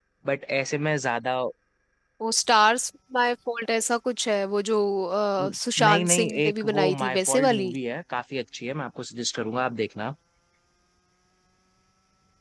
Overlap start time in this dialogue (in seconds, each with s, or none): 5.4 s